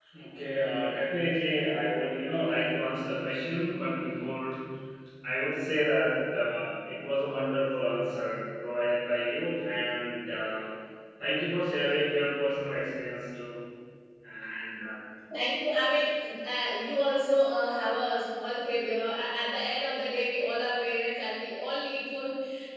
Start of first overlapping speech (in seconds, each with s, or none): none